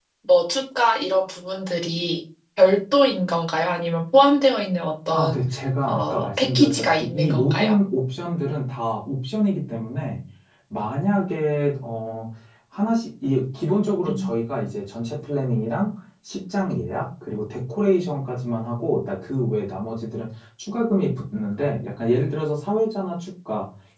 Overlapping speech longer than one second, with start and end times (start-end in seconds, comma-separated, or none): 5.8-7.8